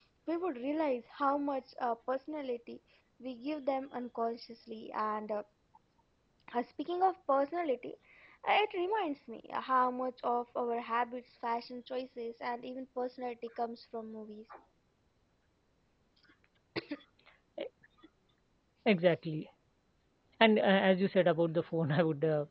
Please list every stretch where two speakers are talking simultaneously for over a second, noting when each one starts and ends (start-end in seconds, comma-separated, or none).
none